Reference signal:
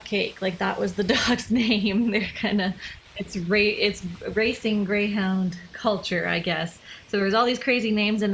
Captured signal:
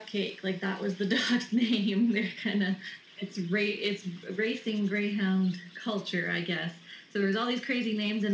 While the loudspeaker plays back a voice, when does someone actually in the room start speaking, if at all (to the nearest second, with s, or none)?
none